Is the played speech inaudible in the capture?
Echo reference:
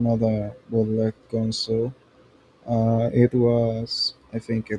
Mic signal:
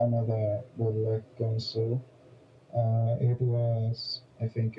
No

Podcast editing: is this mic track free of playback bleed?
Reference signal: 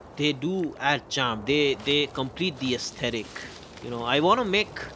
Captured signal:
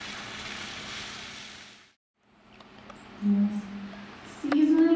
Yes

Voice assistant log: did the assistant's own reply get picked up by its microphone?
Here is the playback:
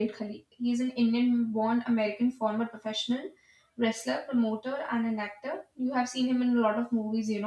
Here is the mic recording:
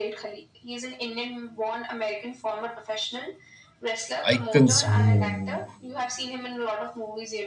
Yes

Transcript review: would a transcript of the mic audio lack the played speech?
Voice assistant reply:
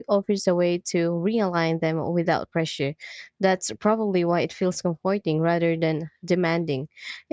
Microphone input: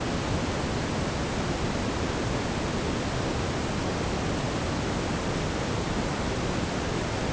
Yes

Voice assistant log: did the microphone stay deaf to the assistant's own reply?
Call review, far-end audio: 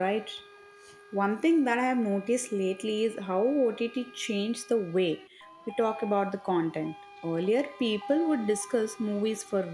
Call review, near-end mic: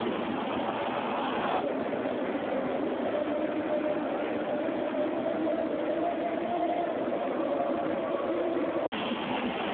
Yes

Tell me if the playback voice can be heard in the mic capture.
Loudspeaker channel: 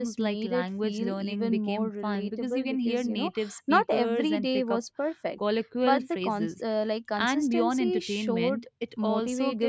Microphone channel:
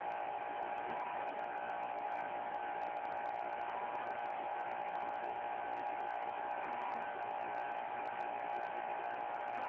No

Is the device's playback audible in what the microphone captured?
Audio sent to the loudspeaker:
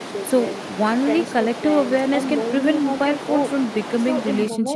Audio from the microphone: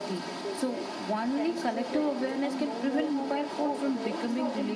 Yes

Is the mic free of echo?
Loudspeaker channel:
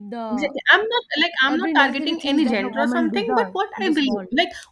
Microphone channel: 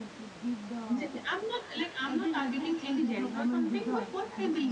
No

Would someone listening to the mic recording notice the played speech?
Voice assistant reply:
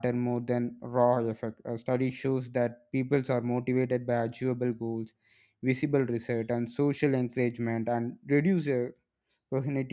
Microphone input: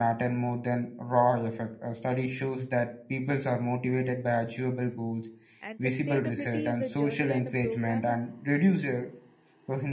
Yes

